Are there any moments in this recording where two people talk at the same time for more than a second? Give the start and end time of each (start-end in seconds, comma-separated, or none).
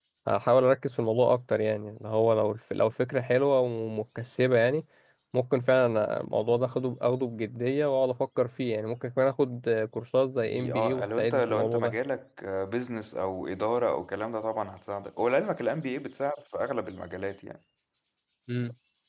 10.4-12.0